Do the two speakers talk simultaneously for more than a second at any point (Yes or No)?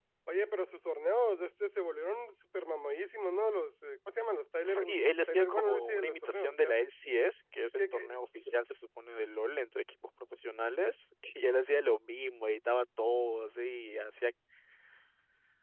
Yes